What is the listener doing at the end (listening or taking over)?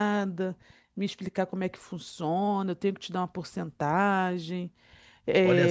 taking over